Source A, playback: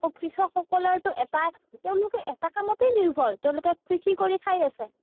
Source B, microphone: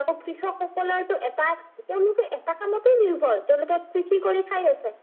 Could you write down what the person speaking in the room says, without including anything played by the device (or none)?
none